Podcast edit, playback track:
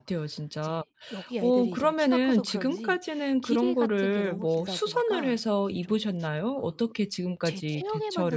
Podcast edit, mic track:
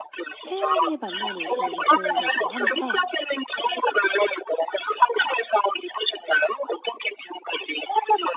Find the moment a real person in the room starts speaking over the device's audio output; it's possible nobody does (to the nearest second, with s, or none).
0 s